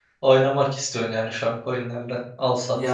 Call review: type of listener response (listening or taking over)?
taking over